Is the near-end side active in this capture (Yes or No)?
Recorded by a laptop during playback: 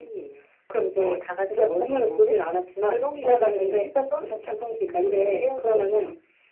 No